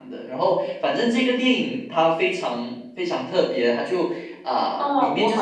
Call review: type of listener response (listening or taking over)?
taking over